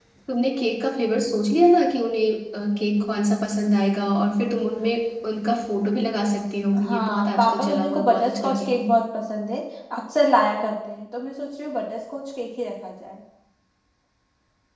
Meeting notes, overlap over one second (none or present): present